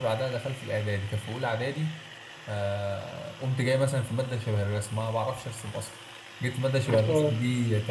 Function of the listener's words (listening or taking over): listening